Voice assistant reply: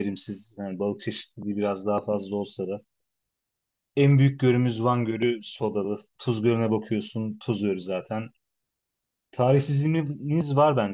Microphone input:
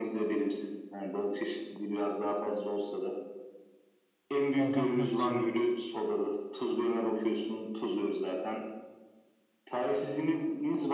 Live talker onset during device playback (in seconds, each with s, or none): 4.6 s